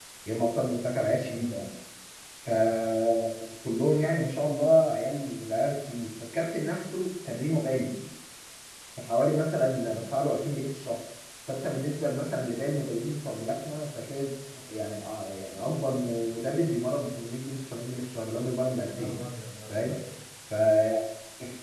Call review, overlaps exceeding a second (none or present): none